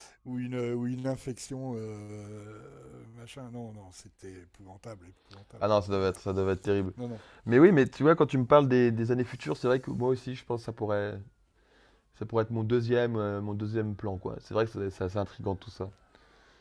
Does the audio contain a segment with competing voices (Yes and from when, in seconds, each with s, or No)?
No